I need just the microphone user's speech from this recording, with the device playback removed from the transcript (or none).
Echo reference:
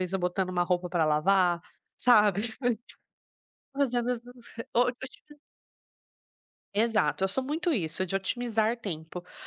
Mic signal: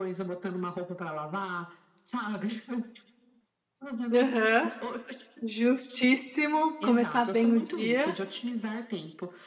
Aham, justíssimo, começar bem o dia.